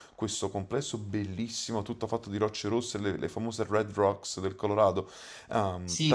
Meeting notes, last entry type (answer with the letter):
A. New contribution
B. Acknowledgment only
A